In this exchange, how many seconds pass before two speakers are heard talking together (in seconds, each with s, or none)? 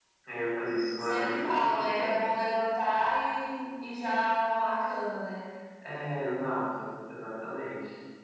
1.0 s